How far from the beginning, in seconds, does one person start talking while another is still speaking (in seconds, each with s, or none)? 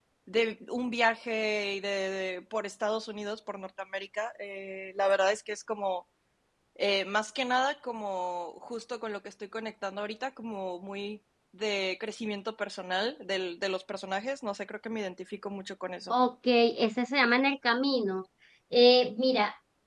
none